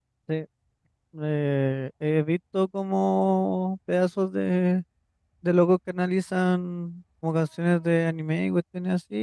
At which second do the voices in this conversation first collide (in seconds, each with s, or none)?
none